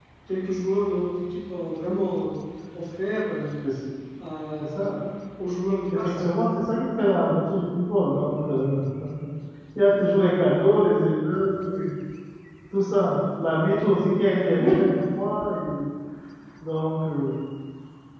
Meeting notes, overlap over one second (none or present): none